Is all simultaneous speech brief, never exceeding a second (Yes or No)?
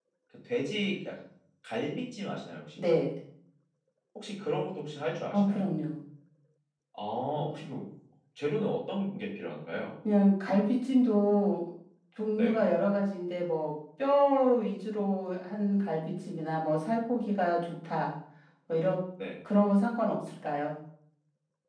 Yes